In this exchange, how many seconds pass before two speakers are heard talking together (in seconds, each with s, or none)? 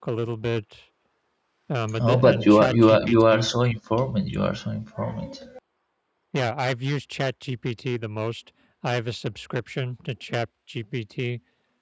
2.0 s